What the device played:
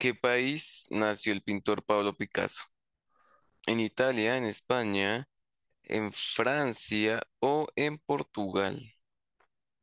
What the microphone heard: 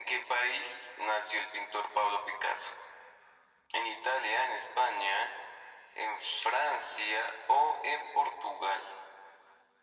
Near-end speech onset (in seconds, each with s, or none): none